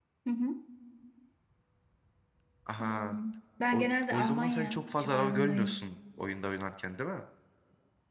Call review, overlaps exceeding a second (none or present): present